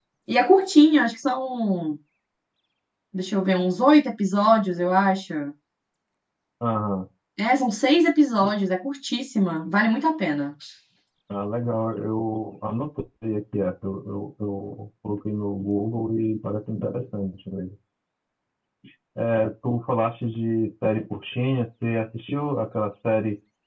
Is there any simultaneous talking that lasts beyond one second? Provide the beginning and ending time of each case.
none

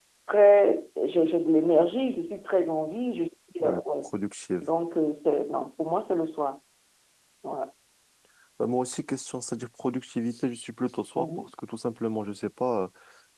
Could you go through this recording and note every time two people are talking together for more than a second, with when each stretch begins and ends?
none

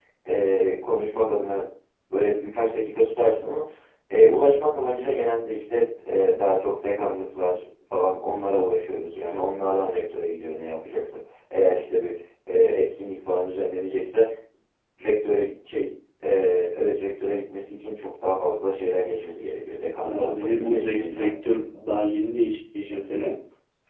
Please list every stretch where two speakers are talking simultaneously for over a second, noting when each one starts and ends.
20.1-21.3

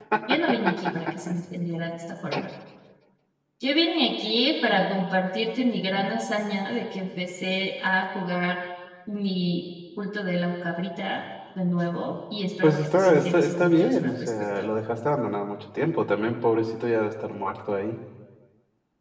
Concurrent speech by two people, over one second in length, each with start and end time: 12.6-14.7

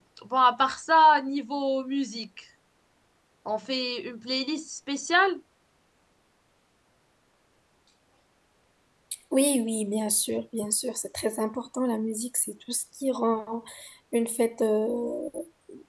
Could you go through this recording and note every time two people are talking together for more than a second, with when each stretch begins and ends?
none

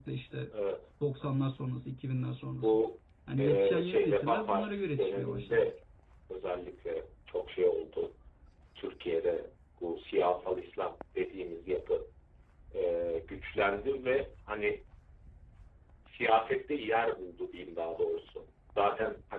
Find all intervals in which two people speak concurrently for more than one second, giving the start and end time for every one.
3.4-5.7

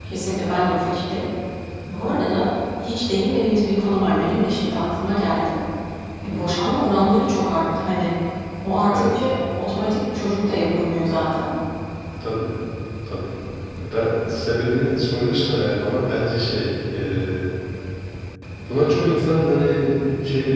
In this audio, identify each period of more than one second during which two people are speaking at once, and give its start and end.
none

